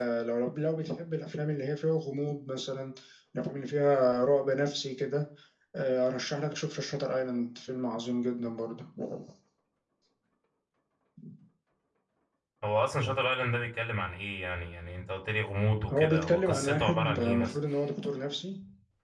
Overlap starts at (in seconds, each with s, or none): 15.9 s